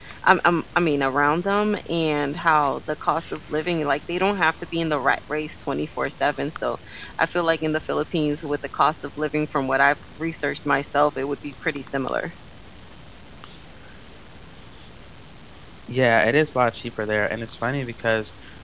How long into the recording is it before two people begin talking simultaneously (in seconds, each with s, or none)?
none